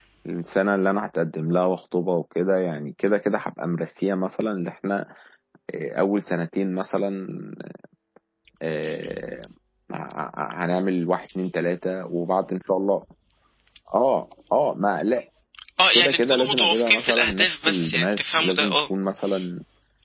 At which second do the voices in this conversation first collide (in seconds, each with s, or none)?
15.9 s